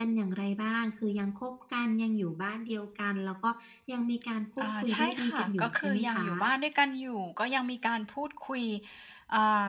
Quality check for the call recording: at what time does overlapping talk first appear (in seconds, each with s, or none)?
4.6 s